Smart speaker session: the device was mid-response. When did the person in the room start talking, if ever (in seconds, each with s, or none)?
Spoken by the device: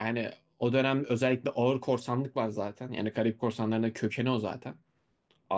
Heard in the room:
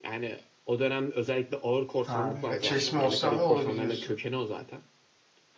2.0 s